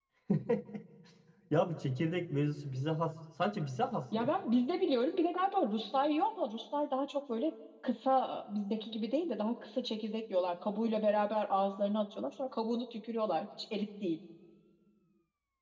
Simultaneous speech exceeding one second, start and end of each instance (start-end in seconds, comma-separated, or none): none